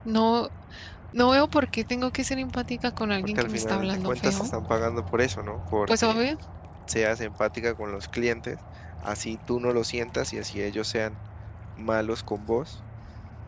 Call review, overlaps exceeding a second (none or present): present